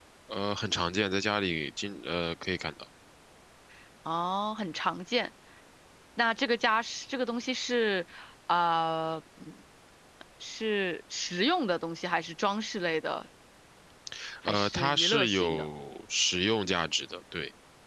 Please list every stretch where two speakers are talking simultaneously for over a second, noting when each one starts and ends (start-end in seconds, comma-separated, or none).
14.4-15.7